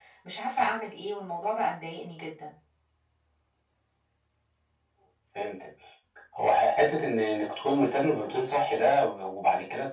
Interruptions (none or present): none